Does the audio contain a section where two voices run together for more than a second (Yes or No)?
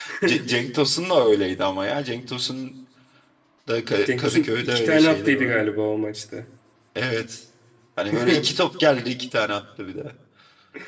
Yes